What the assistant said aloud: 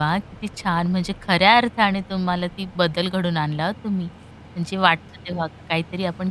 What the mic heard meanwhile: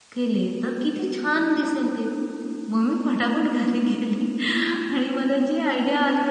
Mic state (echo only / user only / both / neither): user only